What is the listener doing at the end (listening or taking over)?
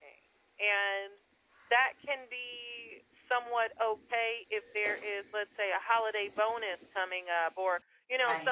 listening